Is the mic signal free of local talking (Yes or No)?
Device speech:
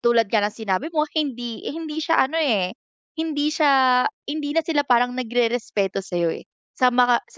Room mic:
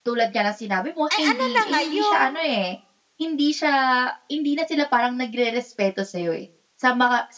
No